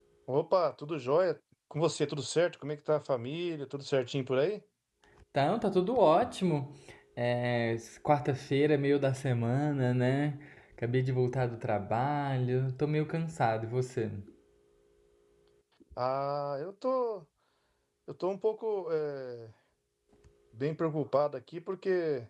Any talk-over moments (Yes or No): No